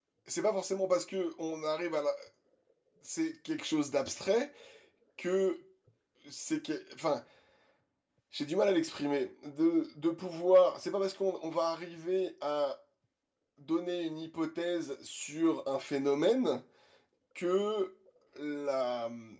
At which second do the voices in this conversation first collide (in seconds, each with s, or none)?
none